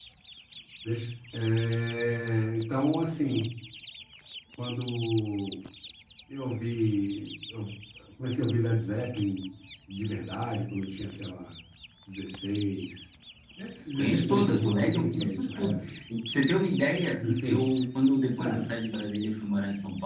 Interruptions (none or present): present